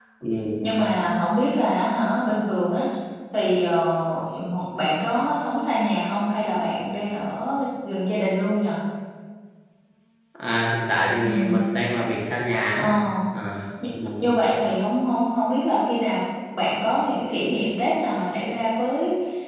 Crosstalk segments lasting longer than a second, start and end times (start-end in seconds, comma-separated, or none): none